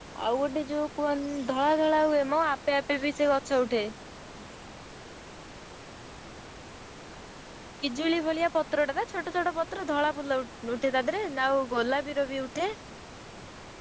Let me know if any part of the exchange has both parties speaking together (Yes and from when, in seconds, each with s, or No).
No